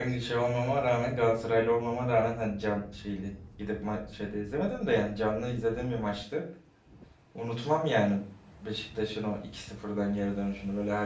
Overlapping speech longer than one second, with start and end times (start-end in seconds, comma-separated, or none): none